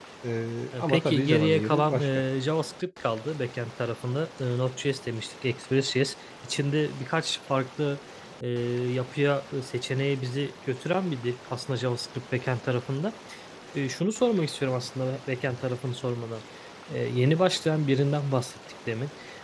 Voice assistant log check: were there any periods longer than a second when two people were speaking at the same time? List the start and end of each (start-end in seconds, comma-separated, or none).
0.8-2.1